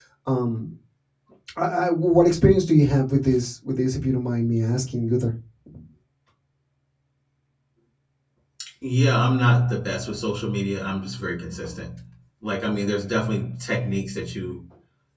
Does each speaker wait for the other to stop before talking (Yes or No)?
Yes